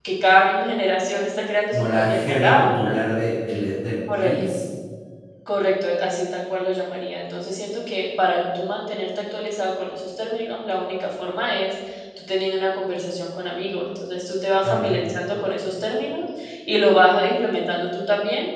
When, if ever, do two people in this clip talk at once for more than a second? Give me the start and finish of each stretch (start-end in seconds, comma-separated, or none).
1.7-3.0